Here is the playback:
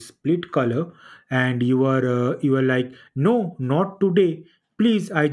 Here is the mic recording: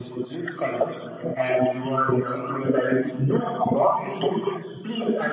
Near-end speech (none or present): none